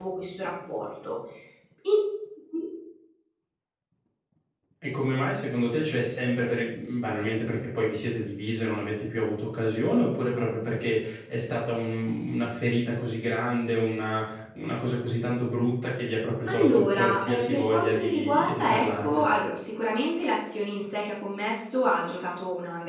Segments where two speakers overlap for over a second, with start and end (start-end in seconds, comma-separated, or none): 16.5-19.3